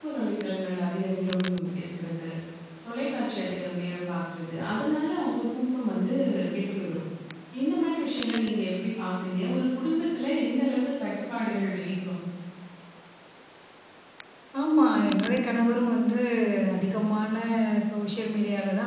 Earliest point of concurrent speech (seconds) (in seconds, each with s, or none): none